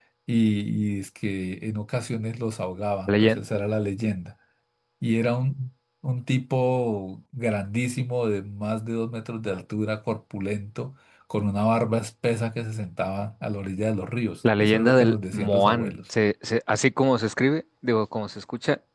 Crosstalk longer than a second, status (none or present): present